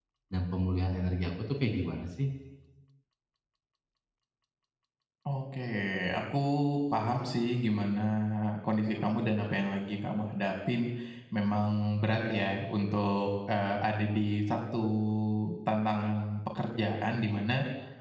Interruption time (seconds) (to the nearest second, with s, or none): none